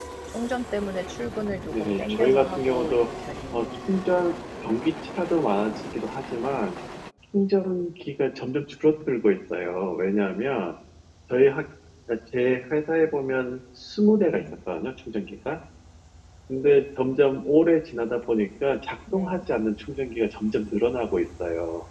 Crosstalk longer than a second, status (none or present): present